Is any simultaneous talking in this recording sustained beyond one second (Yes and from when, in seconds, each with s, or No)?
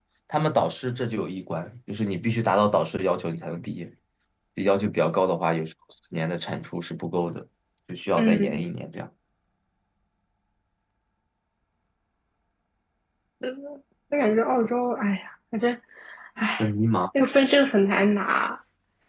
No